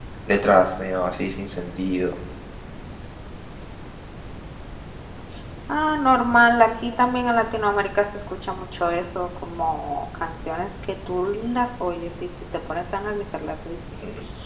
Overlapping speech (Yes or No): No